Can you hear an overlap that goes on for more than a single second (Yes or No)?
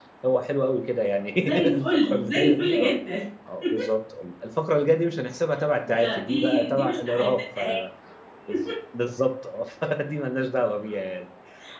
Yes